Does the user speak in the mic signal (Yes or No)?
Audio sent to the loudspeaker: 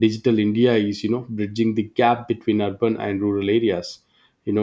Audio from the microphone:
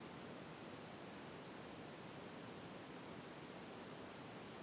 No